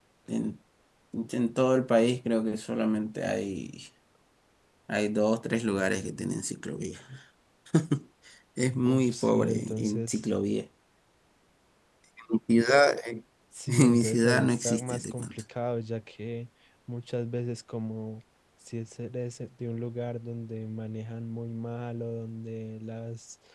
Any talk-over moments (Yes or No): Yes